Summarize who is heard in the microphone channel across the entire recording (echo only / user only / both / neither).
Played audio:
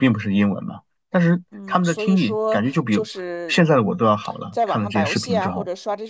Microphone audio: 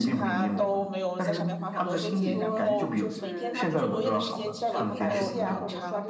both